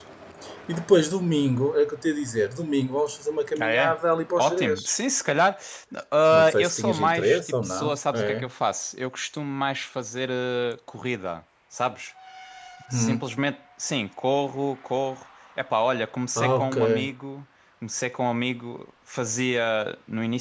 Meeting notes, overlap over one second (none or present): present